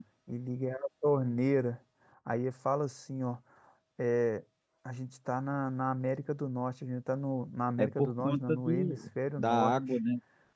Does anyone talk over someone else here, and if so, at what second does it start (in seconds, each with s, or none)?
7.8 s